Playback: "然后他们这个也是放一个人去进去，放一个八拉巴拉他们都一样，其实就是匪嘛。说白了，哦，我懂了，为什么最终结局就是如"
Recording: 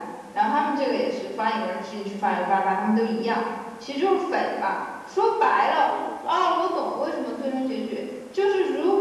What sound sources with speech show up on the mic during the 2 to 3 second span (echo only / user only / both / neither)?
echo only